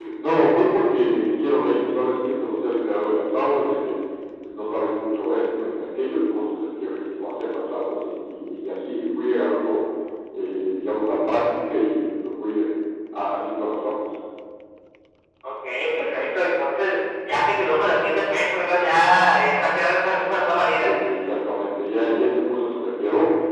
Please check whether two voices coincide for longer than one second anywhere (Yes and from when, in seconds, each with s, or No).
No